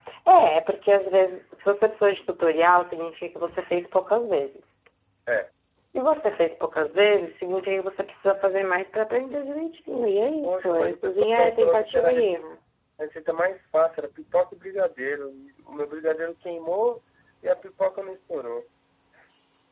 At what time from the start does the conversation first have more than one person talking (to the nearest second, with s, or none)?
10 s